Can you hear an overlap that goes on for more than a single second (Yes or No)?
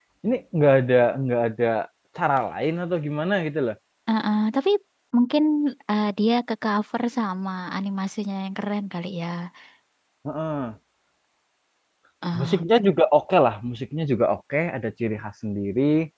No